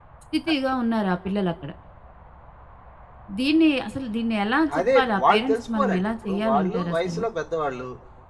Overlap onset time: 4.7 s

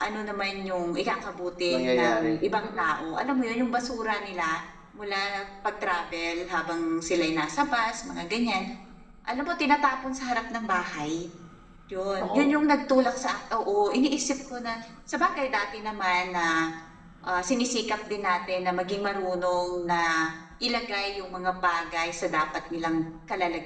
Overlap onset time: 1.7 s

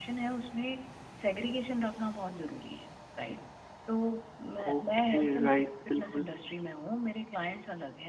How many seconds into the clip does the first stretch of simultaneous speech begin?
4.7 s

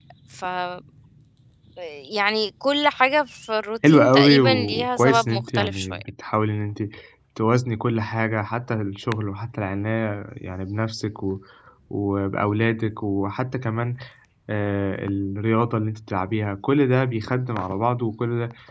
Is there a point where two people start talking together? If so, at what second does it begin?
3.8 s

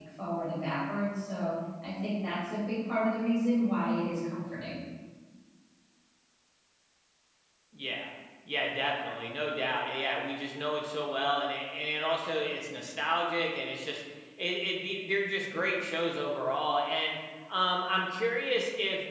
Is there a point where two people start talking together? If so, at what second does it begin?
none

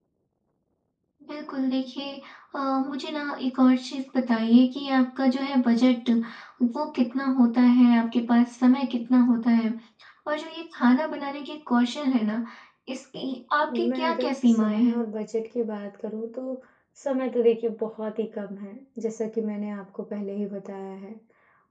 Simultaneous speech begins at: 13.7 s

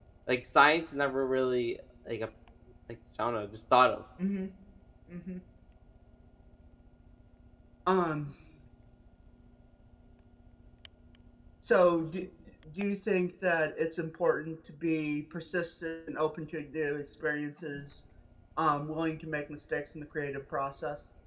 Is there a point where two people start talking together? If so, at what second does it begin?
none

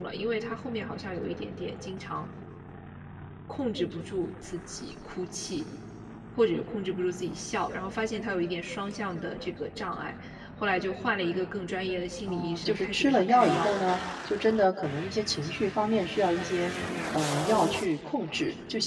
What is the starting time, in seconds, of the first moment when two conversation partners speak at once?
12.2 s

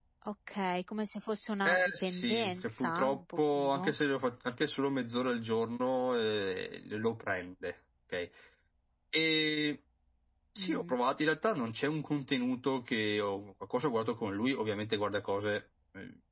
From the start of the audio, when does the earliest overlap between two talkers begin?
1.6 s

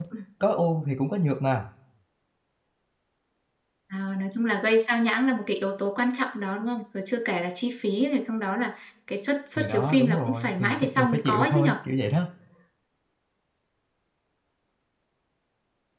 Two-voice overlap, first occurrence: 9.6 s

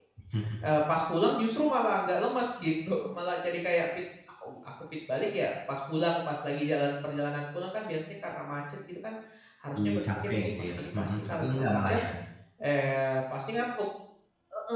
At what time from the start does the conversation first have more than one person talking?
10.0 s

